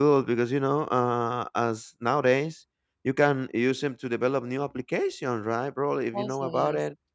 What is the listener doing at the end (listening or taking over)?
listening